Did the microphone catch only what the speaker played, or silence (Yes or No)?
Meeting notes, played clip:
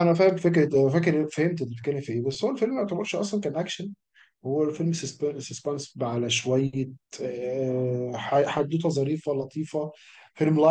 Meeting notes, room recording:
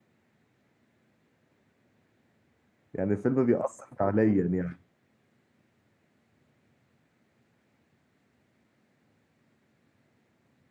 No